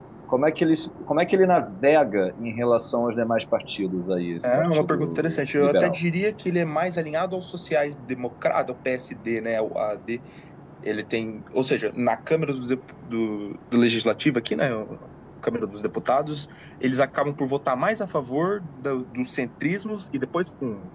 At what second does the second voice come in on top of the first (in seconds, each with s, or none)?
4.4 s